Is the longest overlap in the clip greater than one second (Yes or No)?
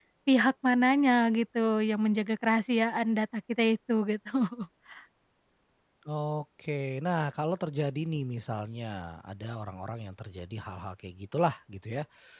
No